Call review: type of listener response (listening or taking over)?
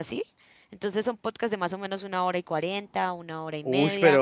taking over